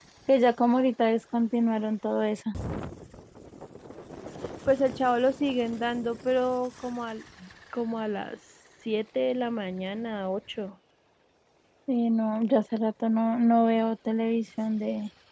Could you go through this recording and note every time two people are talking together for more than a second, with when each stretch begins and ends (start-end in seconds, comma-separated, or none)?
none